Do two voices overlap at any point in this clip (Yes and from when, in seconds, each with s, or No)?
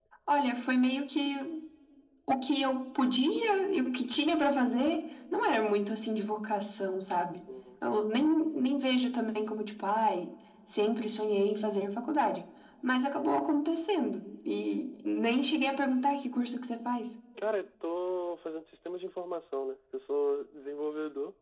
No